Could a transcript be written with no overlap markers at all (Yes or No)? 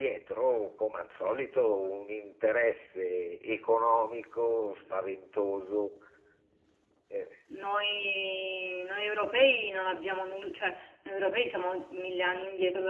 Yes